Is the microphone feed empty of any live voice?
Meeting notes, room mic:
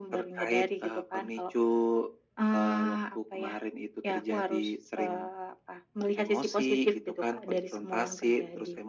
Yes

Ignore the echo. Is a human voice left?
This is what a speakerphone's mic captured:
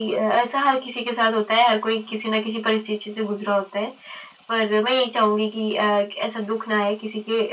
No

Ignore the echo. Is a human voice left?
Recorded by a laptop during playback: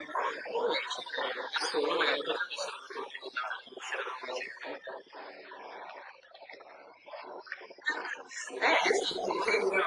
No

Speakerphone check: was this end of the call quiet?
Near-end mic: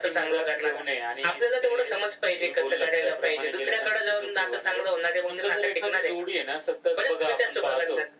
Yes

